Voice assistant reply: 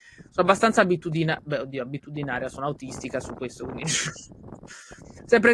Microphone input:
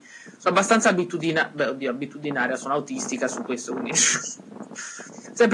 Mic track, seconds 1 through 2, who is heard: echo only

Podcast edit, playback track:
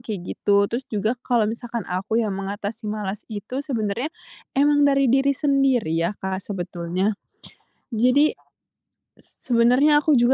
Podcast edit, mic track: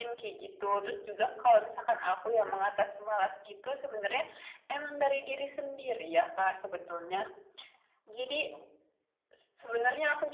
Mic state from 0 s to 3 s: echo only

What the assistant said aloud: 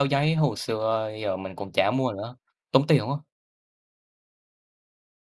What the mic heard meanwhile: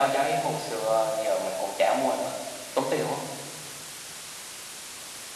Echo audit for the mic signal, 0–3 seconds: echo only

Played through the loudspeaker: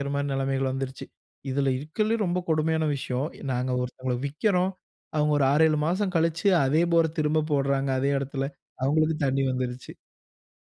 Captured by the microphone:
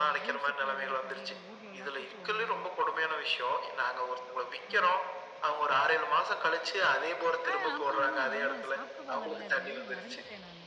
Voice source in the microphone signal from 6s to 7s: echo only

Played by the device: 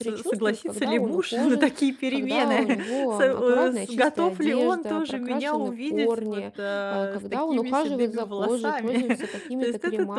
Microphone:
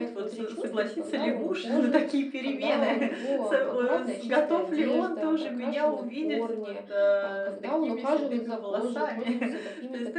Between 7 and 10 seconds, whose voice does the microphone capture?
echo only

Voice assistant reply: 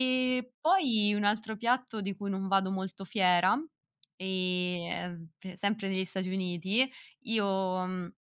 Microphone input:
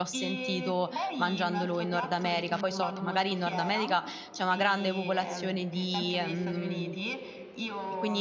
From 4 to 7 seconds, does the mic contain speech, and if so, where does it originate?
both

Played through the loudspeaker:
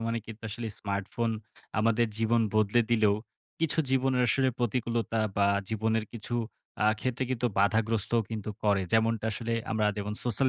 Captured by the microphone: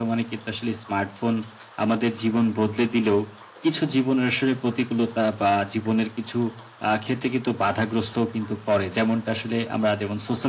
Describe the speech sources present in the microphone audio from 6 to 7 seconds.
echo only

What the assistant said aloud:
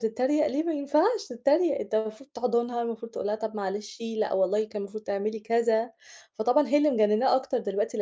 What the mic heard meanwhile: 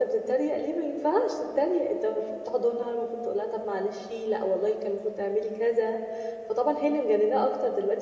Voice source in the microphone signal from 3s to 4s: echo only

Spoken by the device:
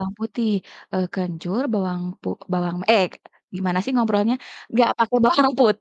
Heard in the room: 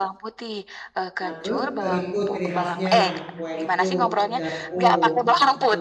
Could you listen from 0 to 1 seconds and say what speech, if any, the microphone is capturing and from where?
echo only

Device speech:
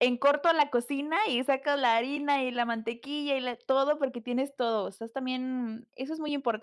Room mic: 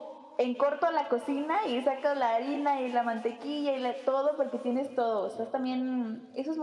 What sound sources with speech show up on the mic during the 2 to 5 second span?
echo only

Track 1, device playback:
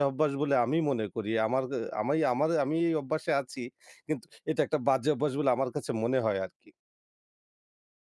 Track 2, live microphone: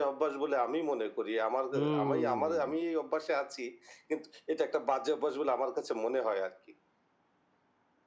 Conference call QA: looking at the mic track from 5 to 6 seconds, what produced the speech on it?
echo only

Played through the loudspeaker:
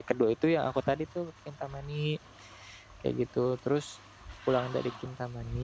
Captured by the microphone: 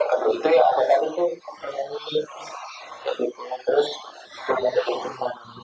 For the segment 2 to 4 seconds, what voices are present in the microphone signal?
echo only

